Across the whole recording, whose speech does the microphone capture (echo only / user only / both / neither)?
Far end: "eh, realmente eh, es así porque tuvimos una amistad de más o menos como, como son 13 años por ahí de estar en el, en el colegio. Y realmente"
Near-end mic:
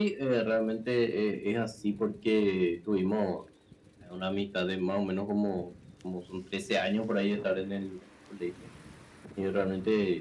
echo only